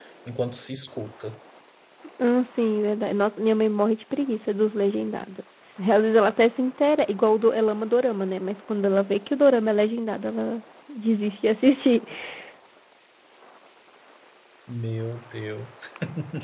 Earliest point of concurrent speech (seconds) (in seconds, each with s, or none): none